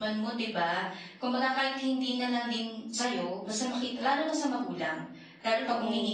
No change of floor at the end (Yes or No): Yes